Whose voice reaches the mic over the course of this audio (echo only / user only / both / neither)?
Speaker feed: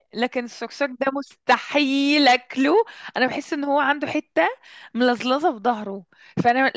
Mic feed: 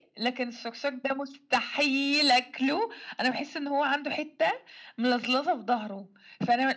echo only